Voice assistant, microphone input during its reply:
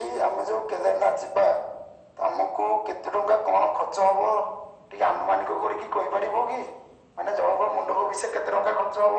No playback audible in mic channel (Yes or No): No